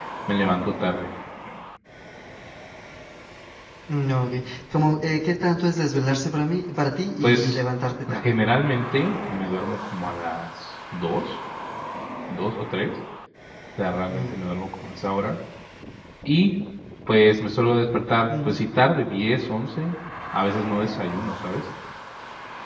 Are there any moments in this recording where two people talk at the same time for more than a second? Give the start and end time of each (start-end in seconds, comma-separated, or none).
none